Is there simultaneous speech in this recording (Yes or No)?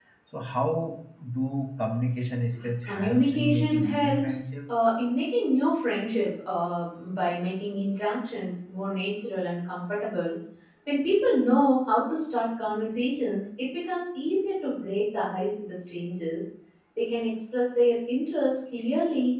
Yes